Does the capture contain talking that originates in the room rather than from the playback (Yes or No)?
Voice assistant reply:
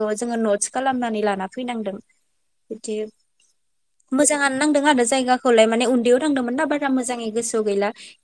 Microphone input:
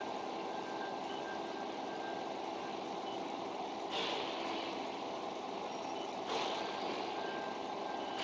No